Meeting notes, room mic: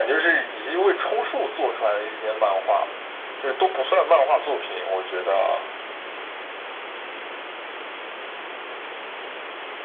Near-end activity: none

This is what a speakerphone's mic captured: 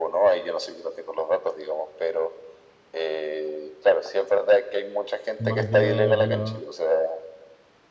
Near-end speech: present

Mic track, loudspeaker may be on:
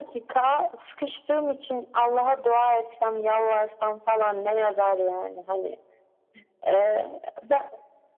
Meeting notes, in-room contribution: none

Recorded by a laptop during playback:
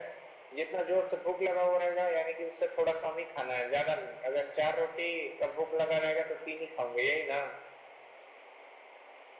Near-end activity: none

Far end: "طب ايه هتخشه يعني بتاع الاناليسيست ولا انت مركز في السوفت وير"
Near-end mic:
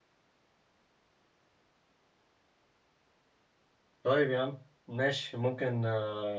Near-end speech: present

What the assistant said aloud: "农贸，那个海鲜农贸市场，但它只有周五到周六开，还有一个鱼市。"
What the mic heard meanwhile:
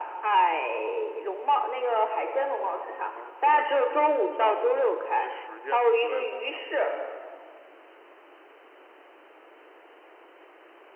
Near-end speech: present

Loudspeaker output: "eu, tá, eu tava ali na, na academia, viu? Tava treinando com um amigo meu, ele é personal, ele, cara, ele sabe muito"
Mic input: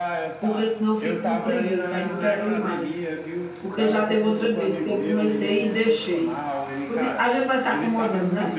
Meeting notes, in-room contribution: present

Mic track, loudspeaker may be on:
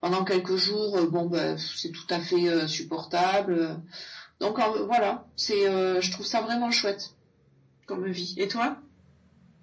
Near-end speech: none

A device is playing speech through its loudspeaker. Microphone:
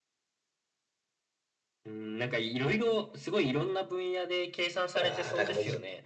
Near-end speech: present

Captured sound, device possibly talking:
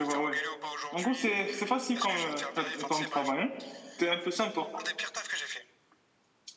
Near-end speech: present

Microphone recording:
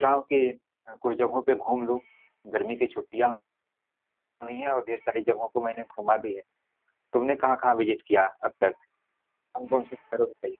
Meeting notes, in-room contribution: present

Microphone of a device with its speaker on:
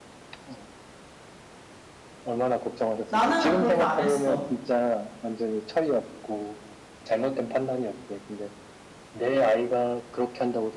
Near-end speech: present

